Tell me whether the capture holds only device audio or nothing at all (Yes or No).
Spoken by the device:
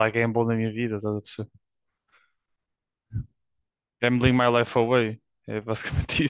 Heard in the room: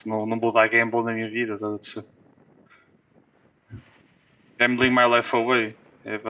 Yes